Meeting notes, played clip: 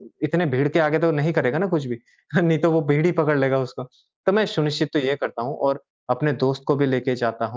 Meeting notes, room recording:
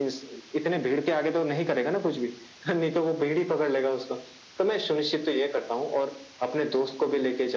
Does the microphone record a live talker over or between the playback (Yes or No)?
No